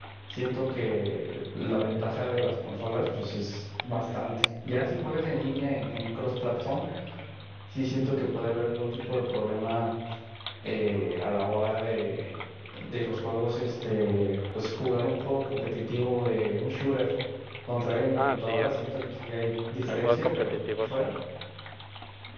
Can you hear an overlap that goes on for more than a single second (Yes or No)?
Yes